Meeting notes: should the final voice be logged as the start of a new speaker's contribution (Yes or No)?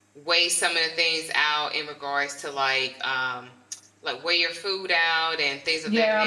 Yes